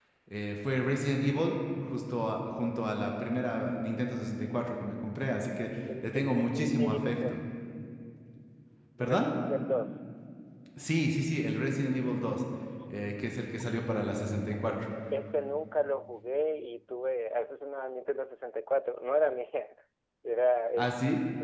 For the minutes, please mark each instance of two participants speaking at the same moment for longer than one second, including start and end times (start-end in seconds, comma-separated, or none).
6.0-7.4